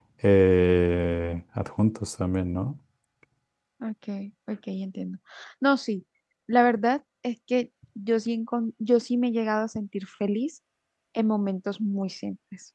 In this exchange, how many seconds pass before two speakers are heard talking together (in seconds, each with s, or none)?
none